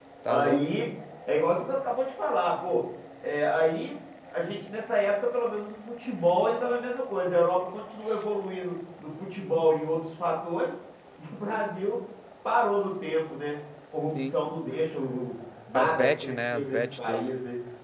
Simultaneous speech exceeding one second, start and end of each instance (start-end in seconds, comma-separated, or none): 15.7-17.3